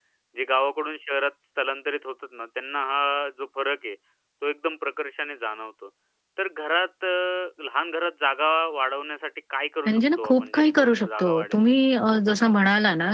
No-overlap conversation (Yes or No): No